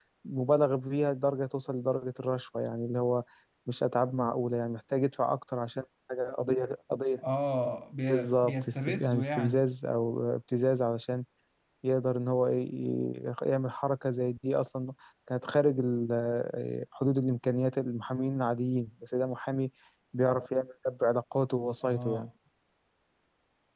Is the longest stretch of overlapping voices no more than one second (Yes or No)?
No